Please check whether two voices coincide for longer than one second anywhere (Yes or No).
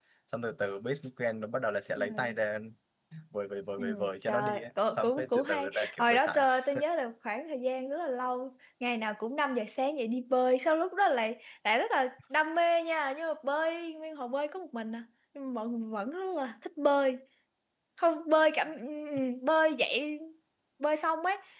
Yes